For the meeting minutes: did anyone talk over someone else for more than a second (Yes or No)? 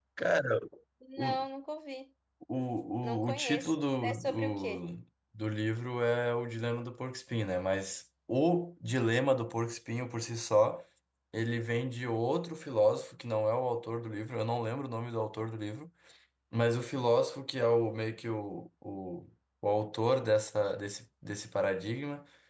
Yes